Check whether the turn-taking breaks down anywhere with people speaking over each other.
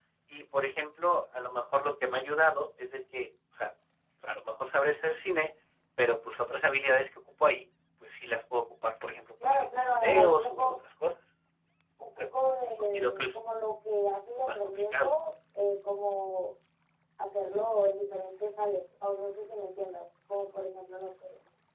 Yes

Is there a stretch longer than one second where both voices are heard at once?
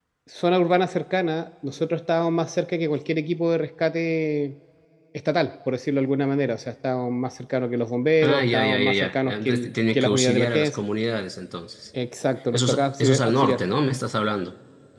Yes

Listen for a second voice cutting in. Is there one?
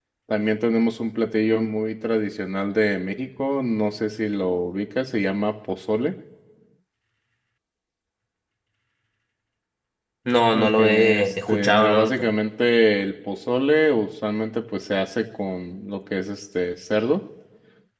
Yes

